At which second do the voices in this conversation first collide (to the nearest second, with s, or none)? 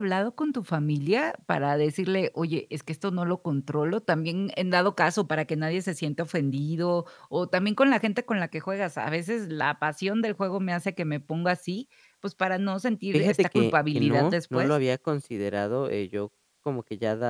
13 s